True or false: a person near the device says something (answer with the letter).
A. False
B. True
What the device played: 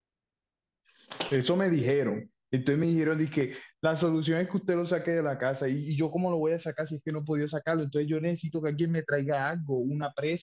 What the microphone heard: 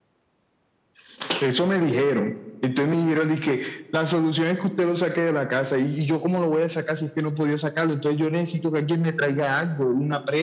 A